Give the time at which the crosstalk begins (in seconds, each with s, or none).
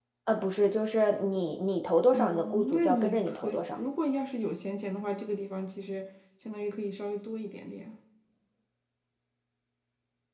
2.1 s